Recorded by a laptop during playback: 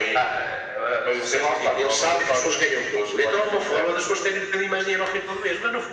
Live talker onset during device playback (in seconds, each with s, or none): none